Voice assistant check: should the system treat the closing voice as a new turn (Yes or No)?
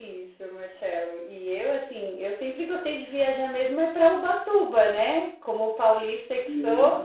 No